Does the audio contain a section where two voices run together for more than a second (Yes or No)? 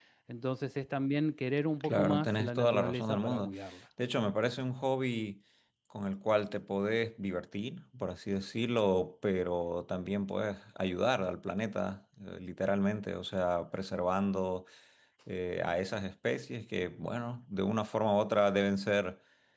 Yes